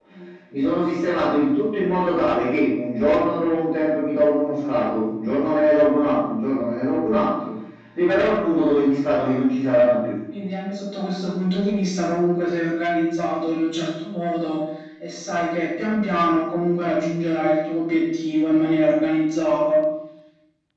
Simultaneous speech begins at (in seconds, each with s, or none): none